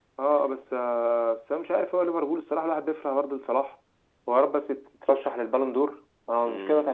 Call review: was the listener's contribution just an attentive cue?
No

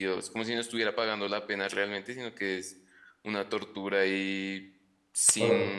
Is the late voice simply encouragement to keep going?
Yes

